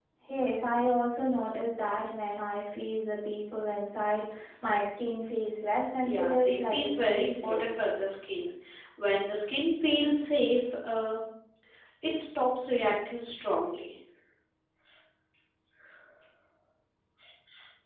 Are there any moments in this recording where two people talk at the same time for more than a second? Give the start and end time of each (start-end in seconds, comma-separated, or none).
6.0-7.8